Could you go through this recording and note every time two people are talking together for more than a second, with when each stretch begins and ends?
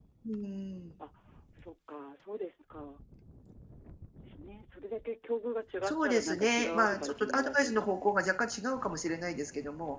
5.8-8.1

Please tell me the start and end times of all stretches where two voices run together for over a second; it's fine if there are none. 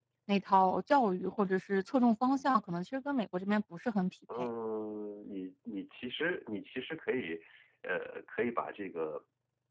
none

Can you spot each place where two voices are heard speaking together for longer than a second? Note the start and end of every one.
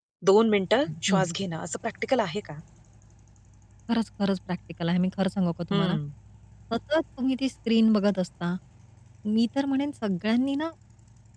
none

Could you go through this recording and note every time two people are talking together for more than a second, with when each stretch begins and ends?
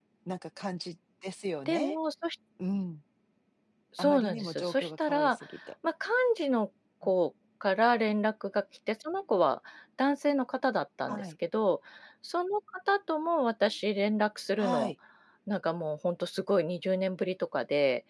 4.0-5.4

